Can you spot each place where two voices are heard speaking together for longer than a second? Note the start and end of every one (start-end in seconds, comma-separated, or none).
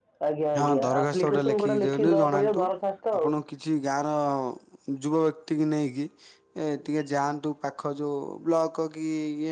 0.6-2.6